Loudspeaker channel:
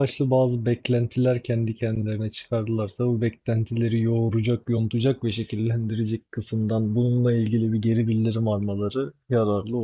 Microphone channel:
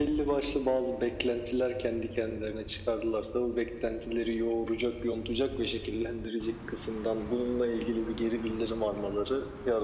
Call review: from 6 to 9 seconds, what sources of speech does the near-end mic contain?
echo only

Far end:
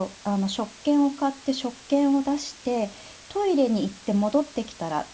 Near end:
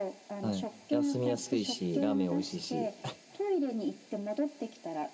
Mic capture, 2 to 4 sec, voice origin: both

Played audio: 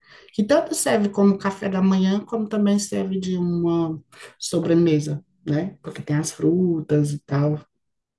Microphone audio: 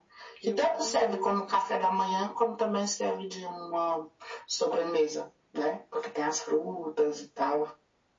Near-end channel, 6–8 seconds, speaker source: echo only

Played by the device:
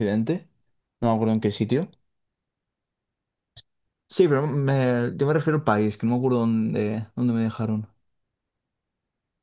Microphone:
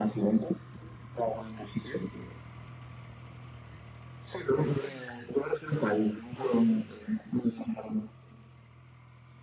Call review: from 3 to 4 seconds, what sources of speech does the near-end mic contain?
neither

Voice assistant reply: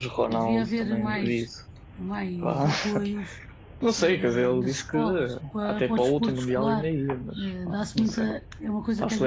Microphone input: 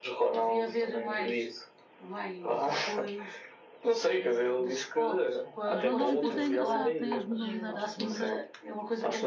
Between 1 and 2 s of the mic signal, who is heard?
echo only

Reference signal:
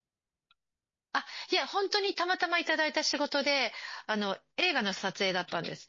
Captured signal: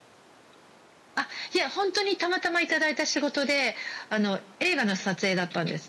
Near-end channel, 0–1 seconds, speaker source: neither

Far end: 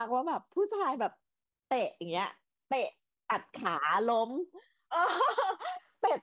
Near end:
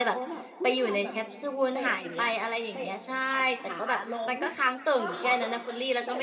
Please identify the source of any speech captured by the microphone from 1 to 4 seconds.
both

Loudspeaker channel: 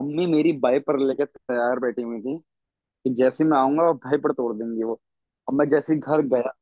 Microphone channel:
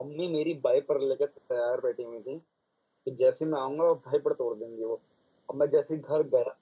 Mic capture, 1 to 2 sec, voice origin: echo only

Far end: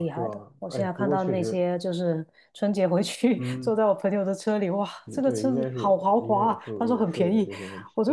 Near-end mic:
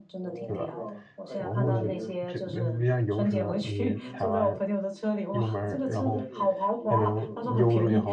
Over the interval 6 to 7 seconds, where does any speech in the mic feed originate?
both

